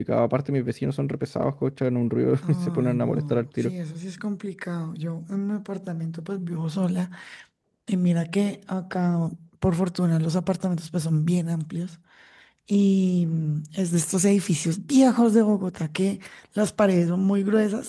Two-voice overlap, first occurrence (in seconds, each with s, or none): 2.4 s